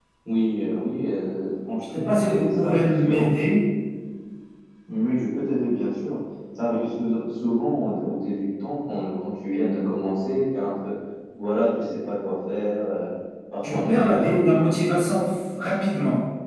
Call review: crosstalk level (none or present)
present